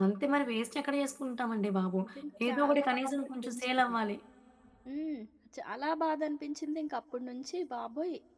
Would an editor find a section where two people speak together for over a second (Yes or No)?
Yes